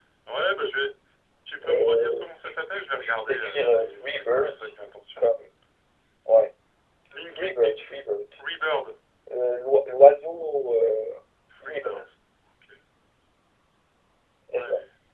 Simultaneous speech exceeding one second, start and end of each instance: 1.7-4.6

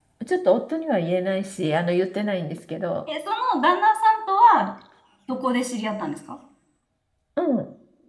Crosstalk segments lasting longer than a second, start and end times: none

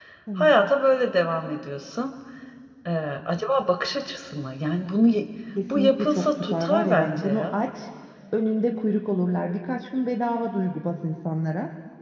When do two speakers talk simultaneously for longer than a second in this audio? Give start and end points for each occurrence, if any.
5.7-7.6

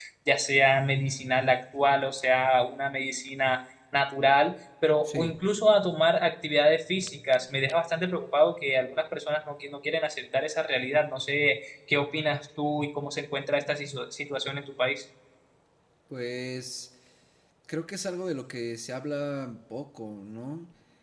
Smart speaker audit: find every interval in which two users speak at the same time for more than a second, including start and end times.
none

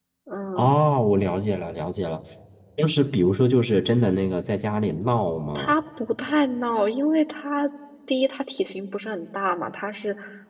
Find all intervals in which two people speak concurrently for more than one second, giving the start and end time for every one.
none

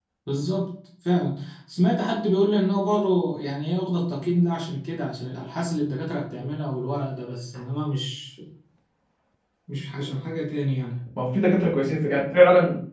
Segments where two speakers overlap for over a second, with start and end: none

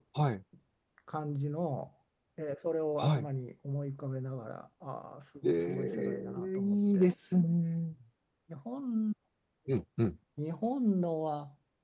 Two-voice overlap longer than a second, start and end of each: 5.4-7.1

